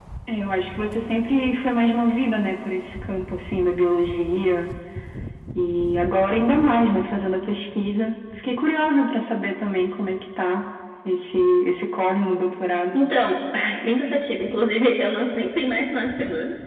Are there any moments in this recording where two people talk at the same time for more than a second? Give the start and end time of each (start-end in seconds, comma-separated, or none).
none